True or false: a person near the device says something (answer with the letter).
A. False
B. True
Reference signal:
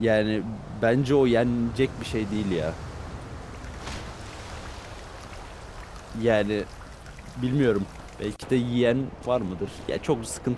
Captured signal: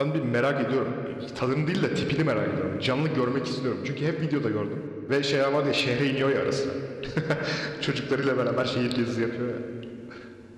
B